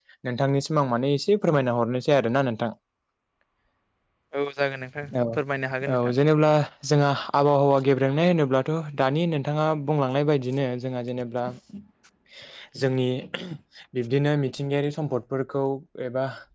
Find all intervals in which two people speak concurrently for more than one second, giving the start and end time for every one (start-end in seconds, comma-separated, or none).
none